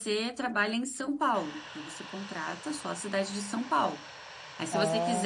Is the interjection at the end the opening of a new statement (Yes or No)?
No